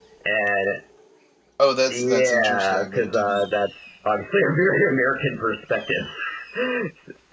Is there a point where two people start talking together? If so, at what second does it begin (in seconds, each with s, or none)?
1.9 s